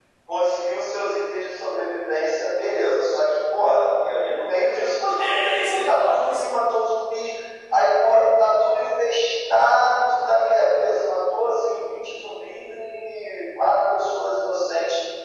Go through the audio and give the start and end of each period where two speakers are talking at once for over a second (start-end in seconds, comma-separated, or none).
5.2-6.6